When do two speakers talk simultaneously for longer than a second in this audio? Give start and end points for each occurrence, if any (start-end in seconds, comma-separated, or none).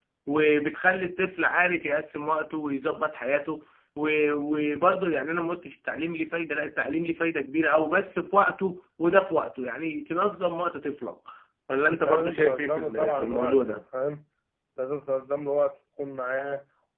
11.9-13.8